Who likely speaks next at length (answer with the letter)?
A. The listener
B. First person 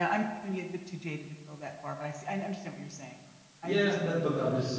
A